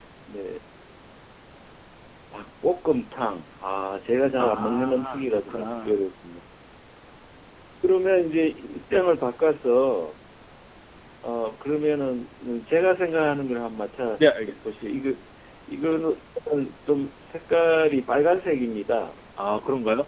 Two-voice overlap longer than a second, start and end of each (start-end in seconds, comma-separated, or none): 4.4-5.9